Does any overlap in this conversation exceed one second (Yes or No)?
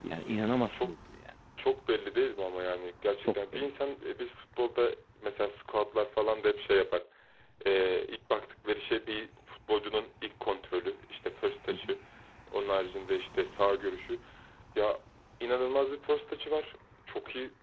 No